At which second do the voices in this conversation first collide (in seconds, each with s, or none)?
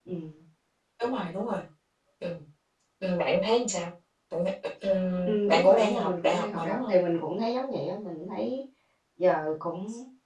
5.3 s